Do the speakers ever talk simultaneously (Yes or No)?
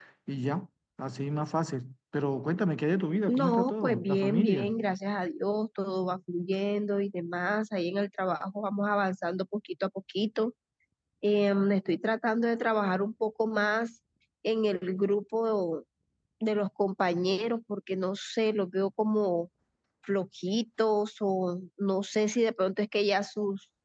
Yes